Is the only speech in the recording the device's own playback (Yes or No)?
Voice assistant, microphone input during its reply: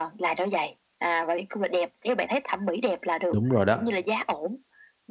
No